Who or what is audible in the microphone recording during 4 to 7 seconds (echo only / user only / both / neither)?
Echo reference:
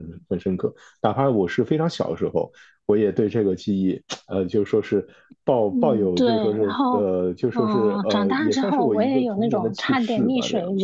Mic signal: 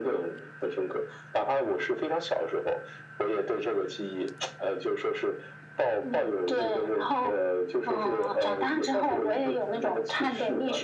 echo only